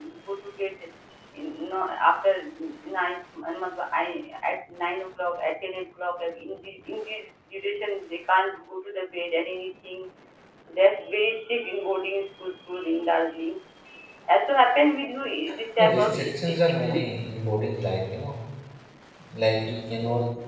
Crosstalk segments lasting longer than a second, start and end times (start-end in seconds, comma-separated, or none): 15.8-17.1